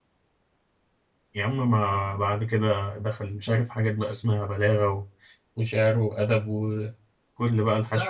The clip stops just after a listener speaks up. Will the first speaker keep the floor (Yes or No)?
No